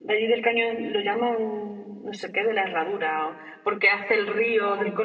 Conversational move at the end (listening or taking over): listening